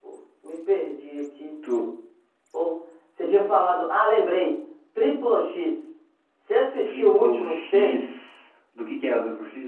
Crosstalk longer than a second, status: present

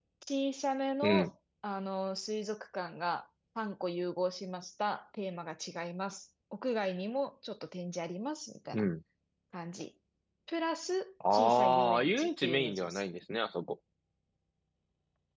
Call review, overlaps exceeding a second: present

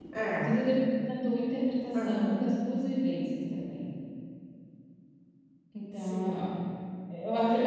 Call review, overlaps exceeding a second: none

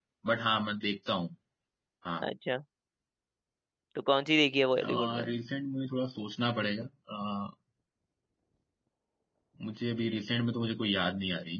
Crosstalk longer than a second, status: none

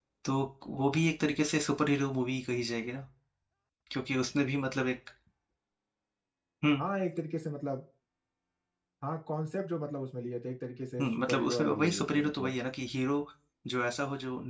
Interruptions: present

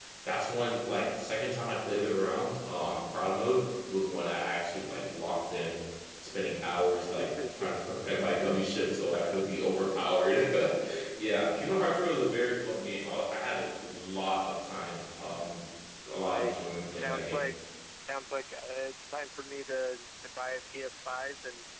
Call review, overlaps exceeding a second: present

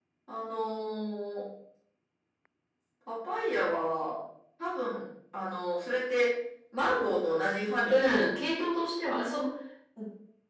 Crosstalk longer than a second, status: none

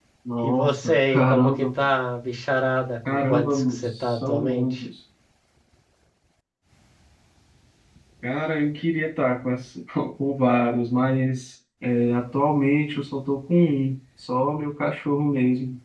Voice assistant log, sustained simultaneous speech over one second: present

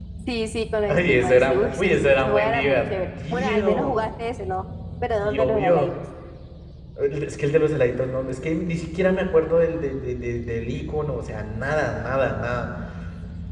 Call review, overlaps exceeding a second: present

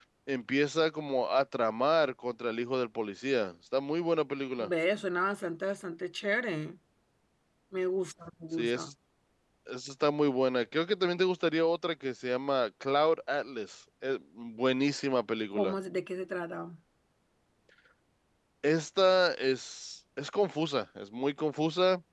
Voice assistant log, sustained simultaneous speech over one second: none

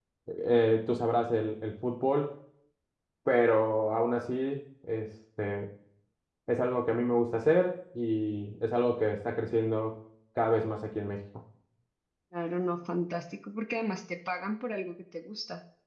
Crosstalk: none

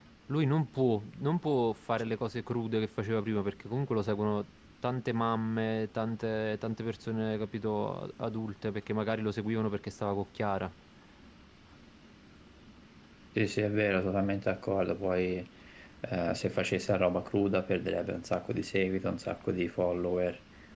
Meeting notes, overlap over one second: none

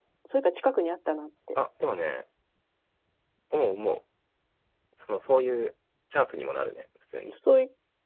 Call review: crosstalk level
none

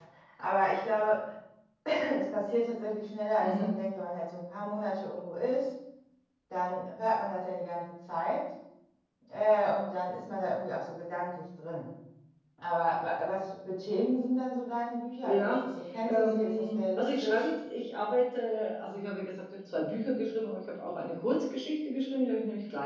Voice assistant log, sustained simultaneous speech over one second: present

